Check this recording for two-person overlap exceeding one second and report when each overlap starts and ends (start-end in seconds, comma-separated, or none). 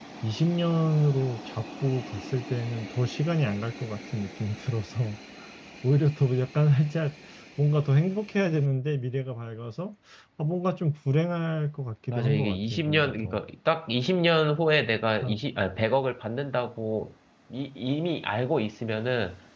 12.1-13.4